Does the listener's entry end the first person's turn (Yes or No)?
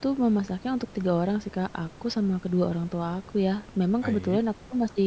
No